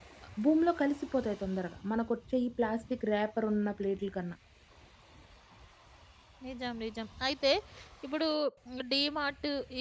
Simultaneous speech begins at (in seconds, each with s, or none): none